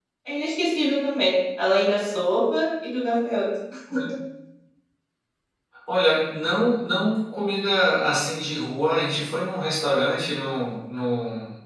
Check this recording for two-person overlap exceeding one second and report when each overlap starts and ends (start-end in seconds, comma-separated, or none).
none